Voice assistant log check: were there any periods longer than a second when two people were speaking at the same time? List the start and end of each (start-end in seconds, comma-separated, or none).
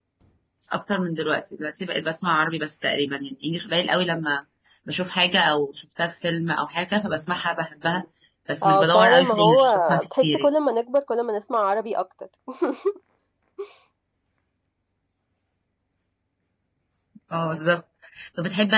8.6-10.5